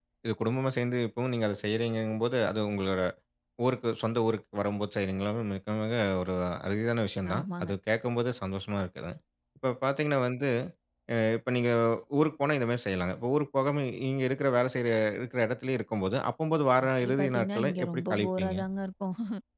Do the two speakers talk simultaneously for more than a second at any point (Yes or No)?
Yes